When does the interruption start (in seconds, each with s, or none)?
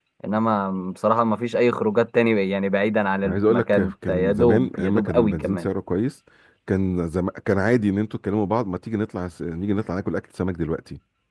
3.2 s